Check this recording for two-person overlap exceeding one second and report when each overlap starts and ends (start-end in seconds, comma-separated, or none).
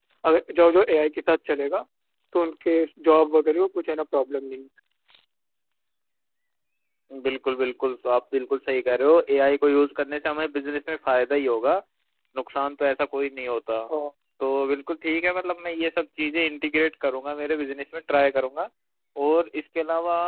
none